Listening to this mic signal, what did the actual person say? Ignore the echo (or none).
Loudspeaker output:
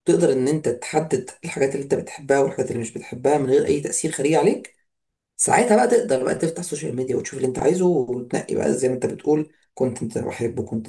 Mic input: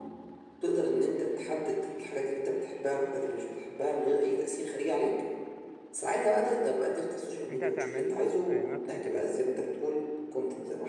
انت هتعمل له آه، not interest